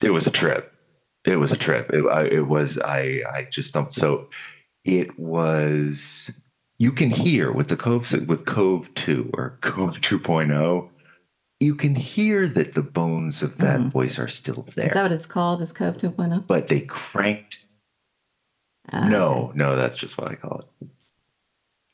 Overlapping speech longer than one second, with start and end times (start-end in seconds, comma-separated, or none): none